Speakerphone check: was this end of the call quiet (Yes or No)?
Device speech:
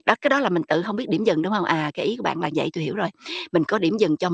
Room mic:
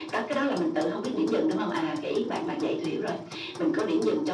Yes